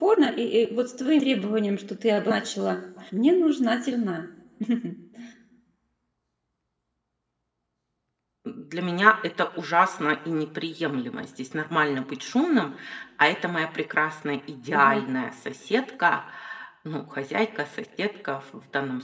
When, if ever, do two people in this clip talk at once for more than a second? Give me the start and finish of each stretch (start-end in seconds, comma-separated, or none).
none